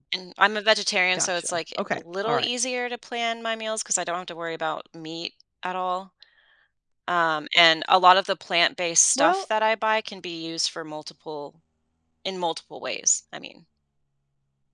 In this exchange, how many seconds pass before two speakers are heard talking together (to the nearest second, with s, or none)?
1 s